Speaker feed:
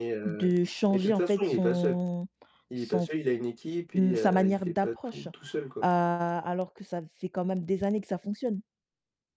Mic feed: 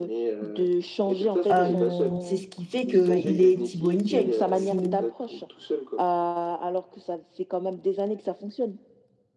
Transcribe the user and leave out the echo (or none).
hem, c'est ce qui fait qu'il est Tibo InShape. Si